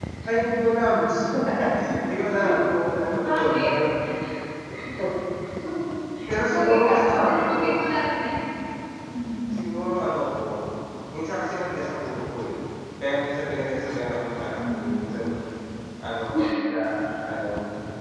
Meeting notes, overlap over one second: present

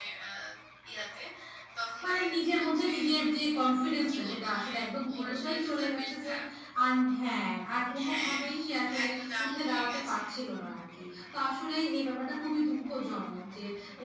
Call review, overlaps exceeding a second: present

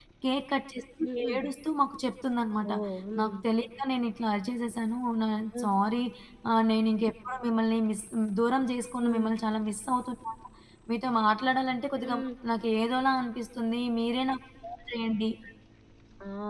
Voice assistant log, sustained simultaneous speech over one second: none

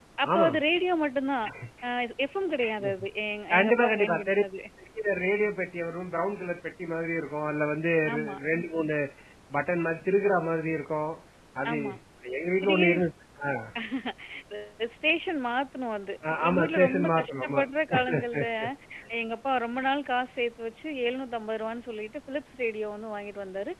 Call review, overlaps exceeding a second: present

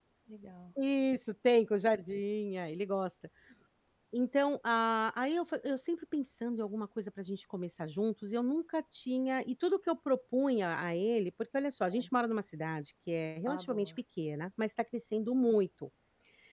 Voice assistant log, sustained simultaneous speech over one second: none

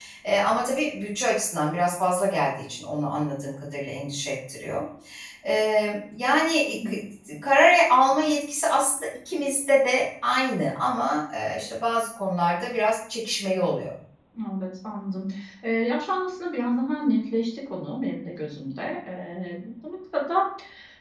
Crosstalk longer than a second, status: none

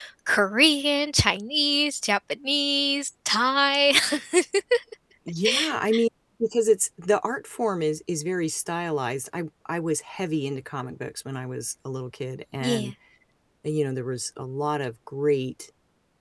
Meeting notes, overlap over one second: none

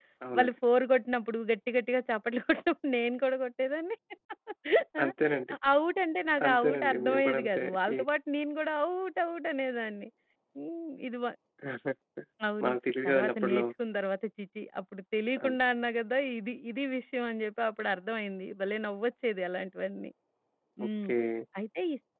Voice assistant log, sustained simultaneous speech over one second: present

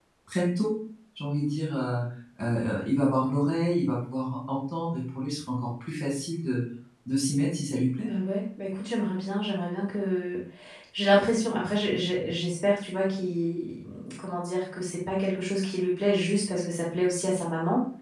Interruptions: none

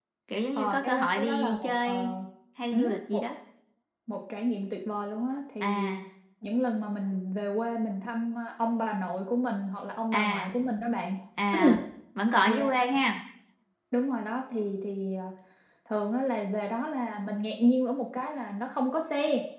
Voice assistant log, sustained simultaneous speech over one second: present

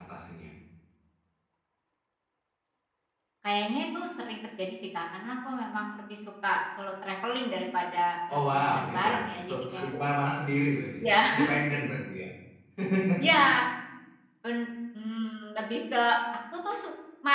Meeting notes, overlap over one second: present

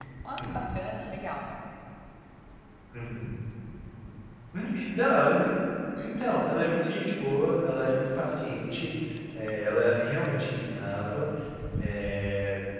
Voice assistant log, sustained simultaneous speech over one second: none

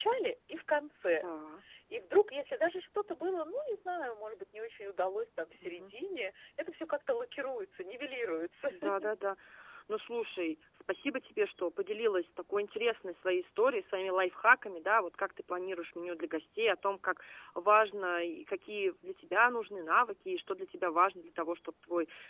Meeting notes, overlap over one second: none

